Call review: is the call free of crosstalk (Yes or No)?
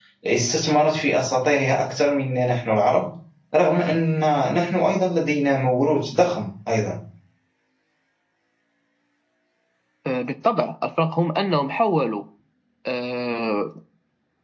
Yes